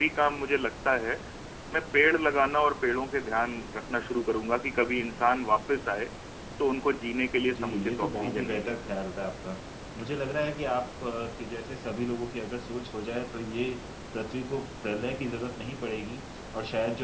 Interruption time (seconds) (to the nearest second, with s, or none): 7 s